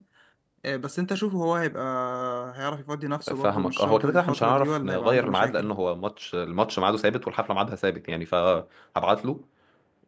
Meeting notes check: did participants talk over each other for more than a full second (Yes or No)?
Yes